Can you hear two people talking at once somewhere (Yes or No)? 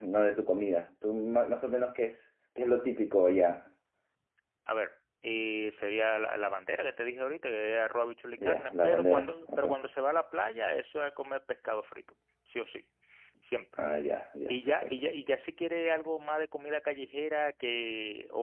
Yes